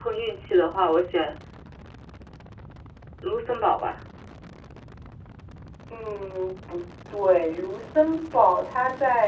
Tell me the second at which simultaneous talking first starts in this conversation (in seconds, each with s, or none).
none